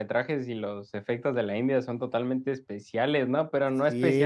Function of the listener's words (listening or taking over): taking over